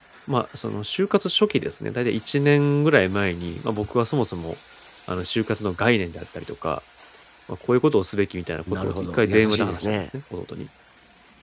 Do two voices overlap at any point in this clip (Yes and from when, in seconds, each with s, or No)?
Yes, from 8.7 s